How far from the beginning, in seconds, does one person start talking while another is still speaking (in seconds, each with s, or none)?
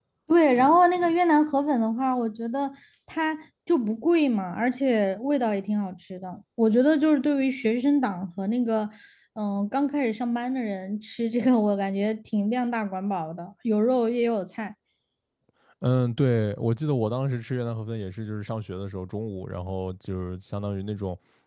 none